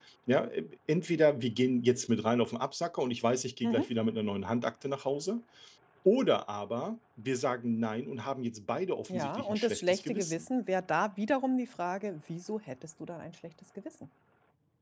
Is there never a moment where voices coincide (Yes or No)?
No